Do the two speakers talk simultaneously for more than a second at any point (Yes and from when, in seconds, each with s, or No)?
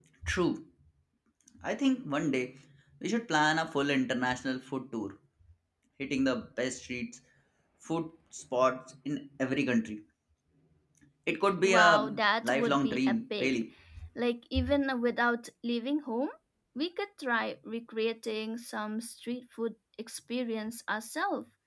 Yes, from 11.6 s